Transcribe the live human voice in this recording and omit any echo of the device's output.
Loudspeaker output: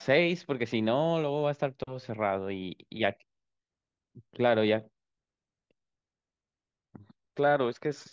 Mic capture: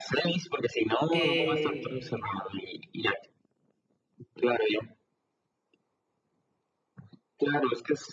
Eh,

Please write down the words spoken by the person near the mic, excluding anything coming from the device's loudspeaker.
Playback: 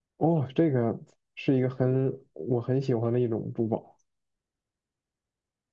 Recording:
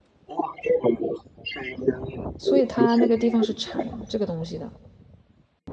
所以它那个地方是产这个东西的。

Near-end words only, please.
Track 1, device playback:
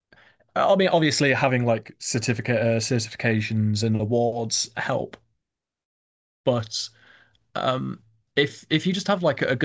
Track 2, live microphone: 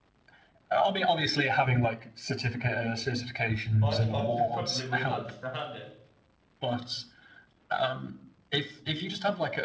Well, I just I just probably wouldn't understand it.

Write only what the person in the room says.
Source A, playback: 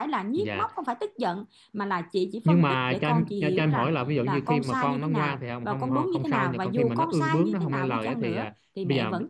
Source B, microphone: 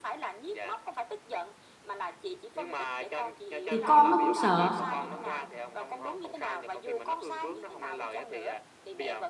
thì con nó cũng sợ

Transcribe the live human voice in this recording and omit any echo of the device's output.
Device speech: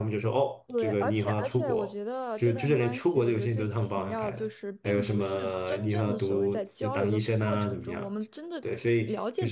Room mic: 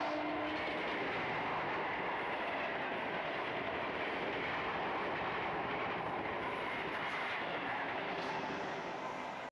none

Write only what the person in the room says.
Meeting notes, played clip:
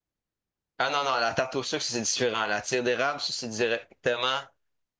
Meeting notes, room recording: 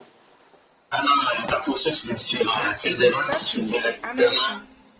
Ah, et donc ça, tu me dis, c'est américain.

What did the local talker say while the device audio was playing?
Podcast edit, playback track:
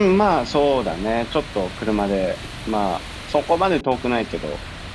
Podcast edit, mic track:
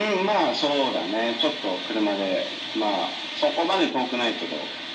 none

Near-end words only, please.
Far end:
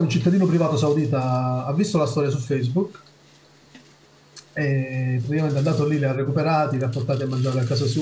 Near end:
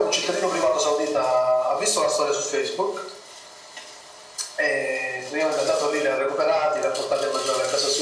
none

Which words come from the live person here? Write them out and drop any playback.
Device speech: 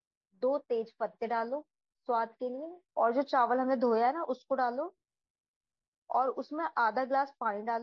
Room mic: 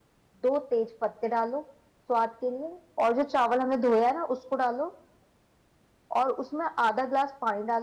none

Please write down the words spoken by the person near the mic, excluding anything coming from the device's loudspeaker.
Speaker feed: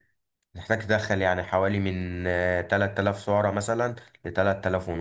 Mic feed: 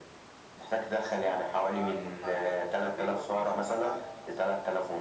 فهضطر آكل حاجة تكون خفيفة وفيها سعرات عالية مثلا

